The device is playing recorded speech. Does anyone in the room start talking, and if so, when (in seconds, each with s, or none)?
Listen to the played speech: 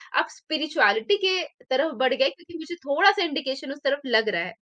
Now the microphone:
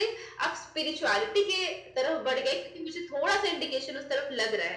none